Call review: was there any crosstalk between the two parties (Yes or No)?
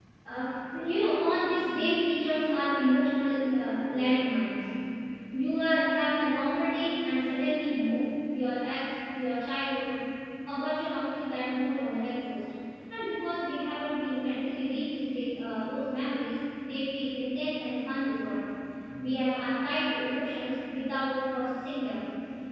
No